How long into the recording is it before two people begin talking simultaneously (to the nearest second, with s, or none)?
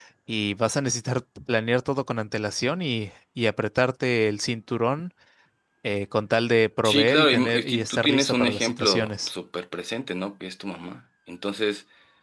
7 s